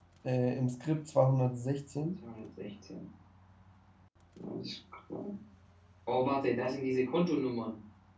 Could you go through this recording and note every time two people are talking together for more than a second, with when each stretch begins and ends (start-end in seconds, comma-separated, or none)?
none